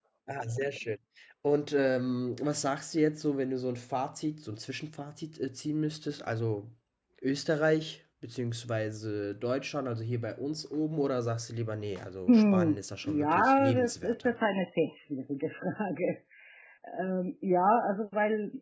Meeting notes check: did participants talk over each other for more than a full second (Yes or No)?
Yes